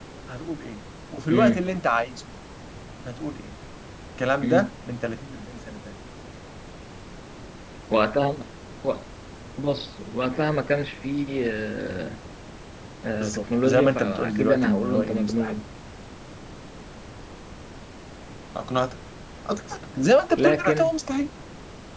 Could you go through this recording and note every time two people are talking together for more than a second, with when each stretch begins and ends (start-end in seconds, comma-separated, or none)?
13.2-15.6